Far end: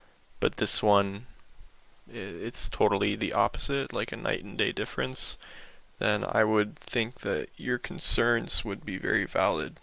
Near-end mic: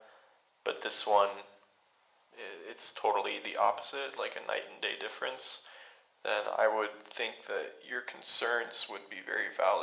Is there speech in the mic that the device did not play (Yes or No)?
No